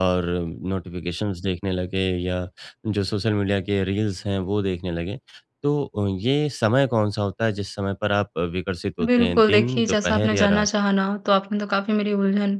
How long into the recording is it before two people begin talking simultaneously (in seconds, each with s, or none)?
9.0 s